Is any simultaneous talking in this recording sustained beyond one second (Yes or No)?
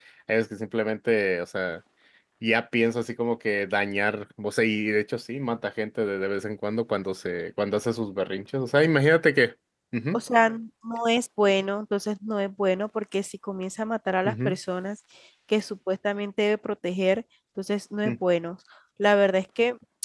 No